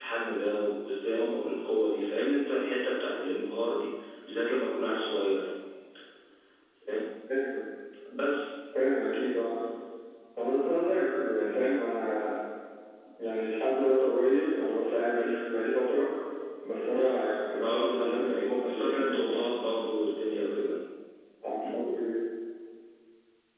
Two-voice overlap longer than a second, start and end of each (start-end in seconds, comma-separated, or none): 17.6-19.5